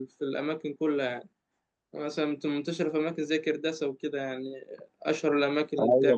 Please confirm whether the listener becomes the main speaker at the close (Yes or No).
Yes